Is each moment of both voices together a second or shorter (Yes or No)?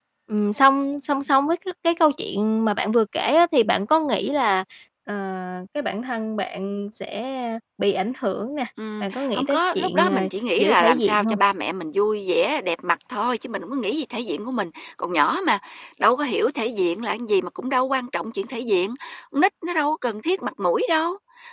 No